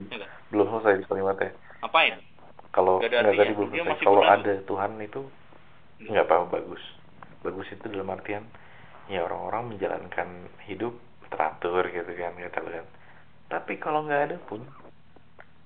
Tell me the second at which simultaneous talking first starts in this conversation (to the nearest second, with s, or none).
3 s